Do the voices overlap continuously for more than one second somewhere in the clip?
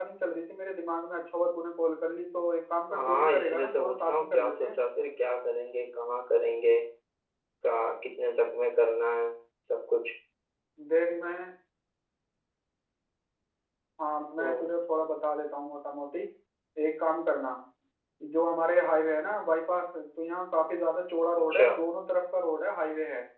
Yes, from 2.9 s

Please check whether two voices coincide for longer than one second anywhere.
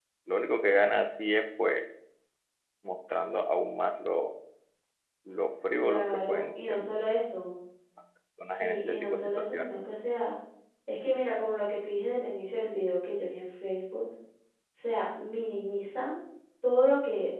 Yes, from 5.8 s

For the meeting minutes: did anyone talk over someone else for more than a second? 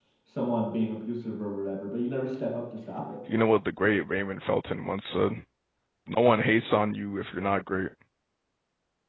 No

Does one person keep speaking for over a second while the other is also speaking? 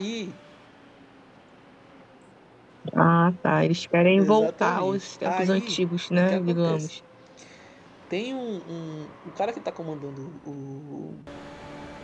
Yes, from 4.2 s

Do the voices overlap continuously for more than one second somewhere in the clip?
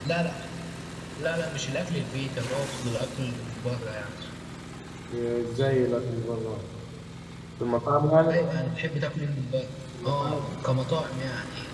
No

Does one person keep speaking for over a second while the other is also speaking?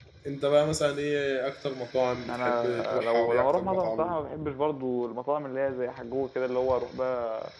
Yes, from 2.3 s

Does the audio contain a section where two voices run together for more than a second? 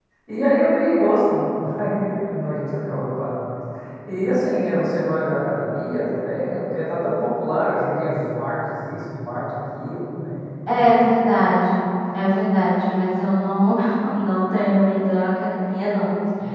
No

